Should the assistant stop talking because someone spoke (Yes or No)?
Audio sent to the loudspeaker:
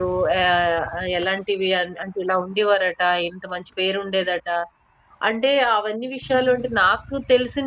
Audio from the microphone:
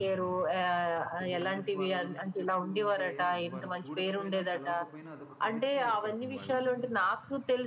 Yes